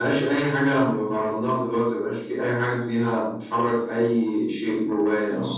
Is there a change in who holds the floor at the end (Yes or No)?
Yes